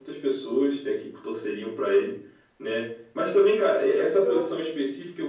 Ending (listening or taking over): listening